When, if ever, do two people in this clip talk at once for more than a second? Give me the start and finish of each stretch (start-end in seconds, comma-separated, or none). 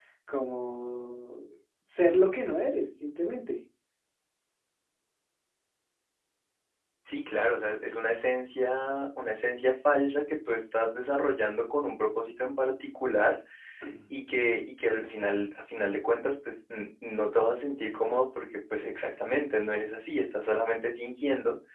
none